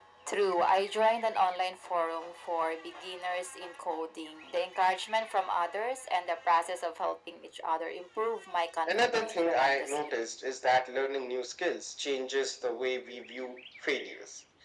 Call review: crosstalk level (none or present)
present